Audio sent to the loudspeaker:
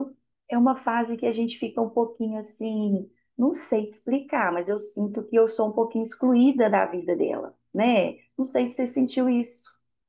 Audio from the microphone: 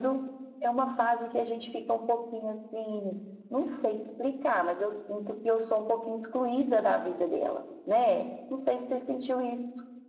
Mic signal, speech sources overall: echo only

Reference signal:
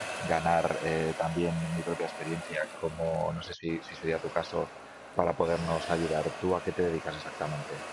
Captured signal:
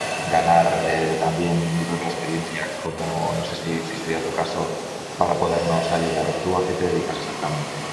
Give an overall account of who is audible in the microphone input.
echo only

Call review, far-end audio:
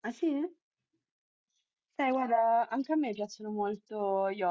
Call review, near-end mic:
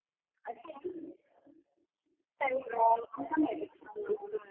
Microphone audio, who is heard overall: echo only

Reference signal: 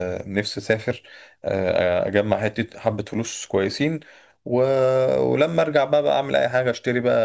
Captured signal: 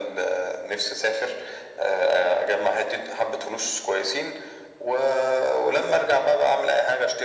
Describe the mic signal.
echo only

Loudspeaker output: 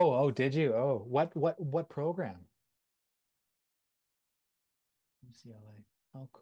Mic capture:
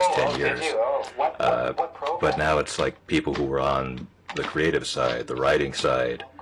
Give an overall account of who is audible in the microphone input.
both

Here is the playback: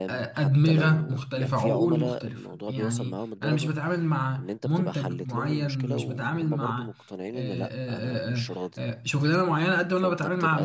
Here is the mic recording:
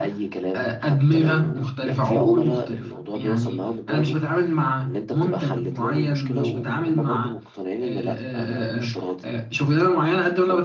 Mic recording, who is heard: echo only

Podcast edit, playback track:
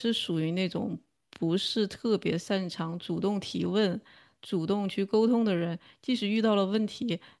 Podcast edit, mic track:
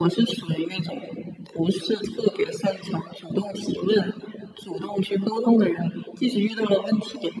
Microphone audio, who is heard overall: echo only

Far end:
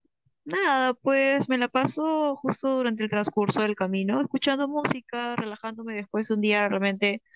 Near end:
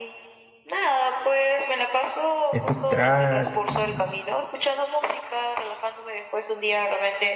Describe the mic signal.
both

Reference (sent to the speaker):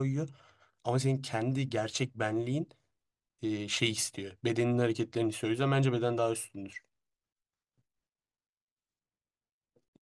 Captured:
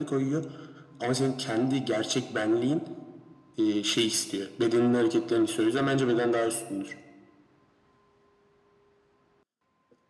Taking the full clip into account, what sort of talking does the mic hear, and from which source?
echo only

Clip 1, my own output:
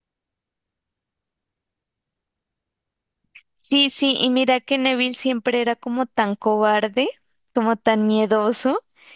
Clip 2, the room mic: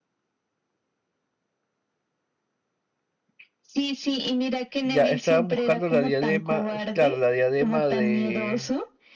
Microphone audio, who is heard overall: both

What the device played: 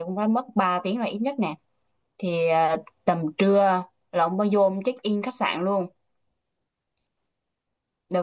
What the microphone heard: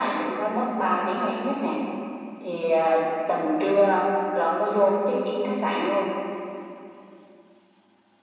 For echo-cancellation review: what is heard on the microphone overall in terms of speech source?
echo only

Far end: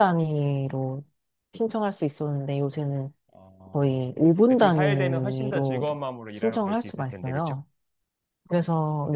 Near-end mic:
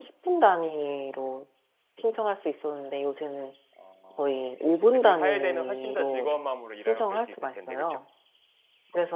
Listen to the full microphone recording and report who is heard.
echo only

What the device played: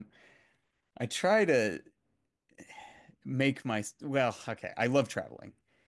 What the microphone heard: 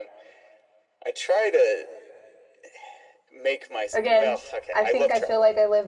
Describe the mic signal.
both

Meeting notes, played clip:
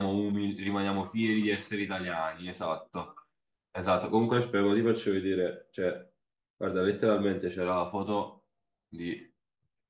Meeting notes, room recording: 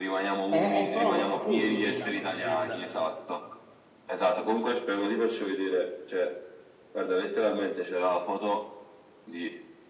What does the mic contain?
both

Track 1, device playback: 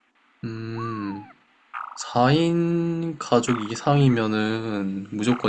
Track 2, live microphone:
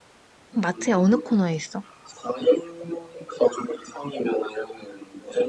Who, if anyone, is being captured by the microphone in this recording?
both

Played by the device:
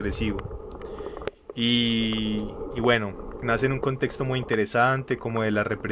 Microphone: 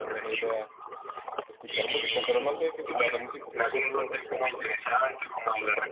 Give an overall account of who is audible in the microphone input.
both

